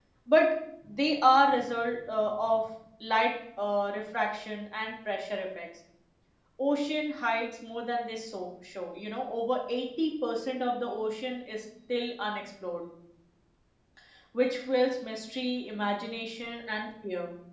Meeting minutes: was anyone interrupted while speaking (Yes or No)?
No